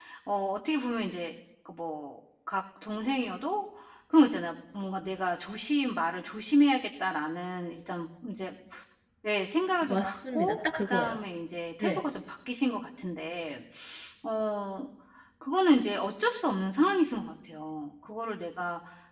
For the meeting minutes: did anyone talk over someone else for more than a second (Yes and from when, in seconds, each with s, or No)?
Yes, from 9.8 s